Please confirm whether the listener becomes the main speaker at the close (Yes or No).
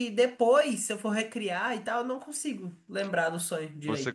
Yes